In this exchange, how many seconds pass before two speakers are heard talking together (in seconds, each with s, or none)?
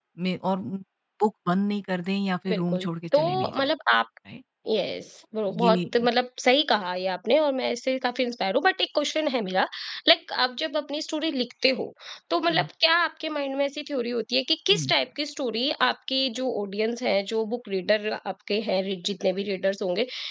2.5 s